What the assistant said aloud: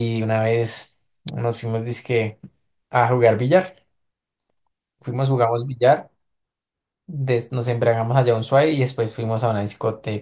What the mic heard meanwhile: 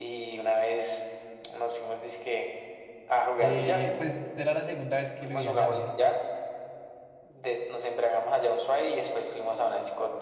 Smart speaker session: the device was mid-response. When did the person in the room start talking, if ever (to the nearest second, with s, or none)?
3 s